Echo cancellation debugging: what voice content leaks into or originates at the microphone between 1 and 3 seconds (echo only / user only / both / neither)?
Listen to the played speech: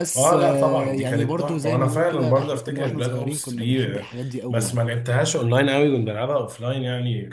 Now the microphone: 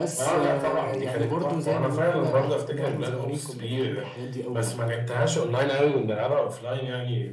echo only